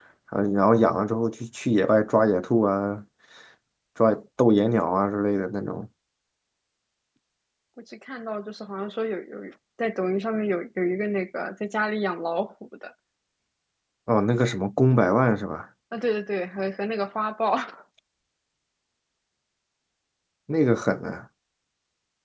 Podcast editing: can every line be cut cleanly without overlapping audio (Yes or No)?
Yes